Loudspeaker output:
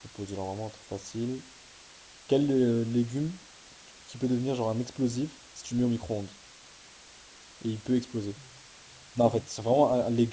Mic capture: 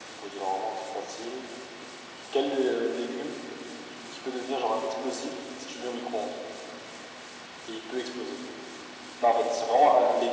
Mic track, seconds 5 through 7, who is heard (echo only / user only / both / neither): echo only